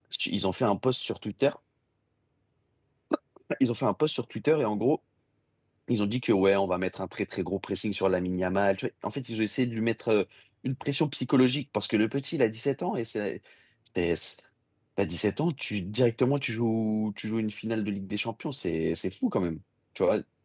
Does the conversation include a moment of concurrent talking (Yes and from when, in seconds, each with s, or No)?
No